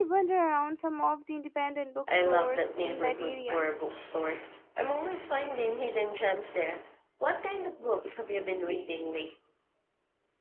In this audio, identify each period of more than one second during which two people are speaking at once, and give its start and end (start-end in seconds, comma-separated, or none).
2.1-3.6